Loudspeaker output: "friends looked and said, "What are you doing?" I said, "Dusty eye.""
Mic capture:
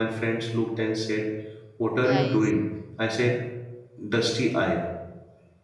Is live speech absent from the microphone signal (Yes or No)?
No